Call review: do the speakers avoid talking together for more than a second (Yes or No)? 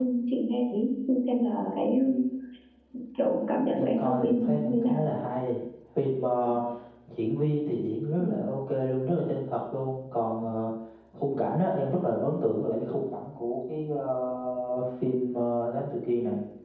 No